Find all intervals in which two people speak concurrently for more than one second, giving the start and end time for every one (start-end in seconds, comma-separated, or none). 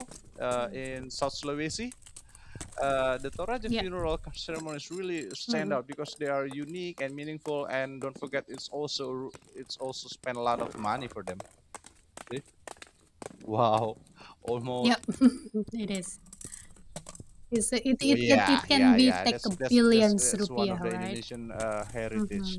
18.0-21.2